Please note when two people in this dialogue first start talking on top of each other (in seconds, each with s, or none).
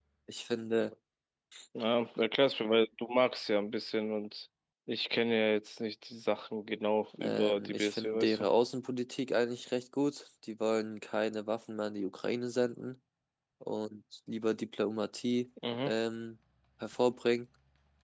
7.2 s